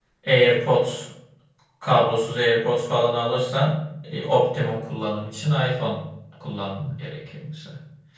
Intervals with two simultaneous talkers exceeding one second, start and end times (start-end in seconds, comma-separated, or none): none